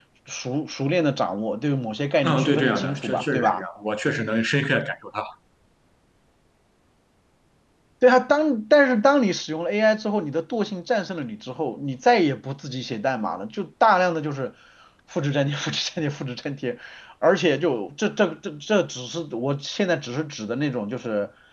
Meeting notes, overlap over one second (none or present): present